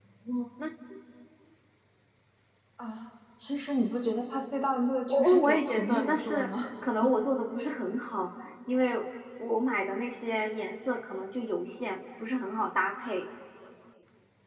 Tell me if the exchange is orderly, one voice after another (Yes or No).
No